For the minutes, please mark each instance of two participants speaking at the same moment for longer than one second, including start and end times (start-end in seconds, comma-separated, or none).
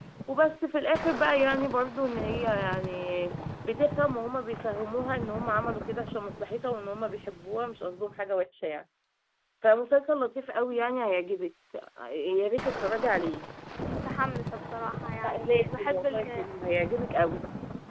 15.2-16.4